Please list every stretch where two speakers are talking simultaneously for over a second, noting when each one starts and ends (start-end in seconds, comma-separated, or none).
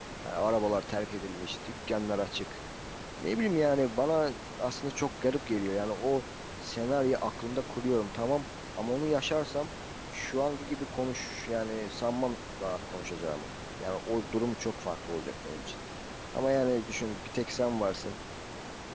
none